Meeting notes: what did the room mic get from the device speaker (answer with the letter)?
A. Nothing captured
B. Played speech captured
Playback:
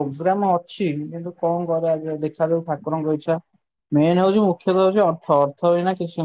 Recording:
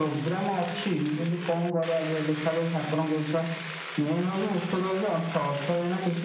B